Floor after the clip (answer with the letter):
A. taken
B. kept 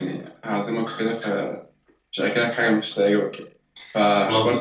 B